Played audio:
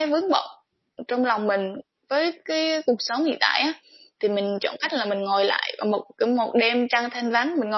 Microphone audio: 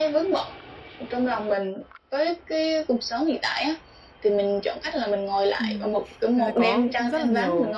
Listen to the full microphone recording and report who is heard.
both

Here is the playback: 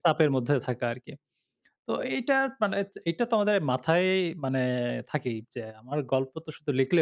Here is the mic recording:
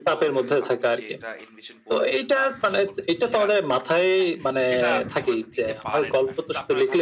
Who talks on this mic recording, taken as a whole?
both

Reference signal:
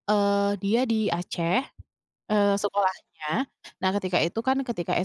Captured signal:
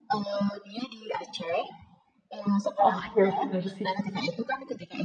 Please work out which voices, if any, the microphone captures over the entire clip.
both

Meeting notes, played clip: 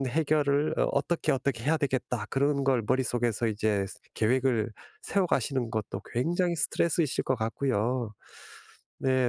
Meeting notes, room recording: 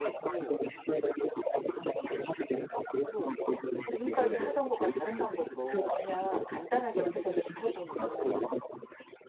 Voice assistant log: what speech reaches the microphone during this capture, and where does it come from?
both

